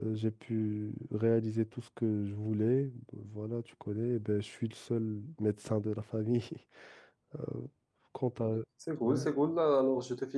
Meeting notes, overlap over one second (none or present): none